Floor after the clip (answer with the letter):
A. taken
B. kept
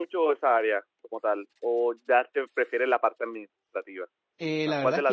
A